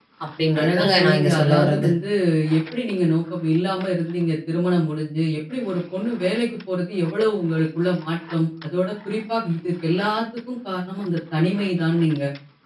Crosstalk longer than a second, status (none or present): present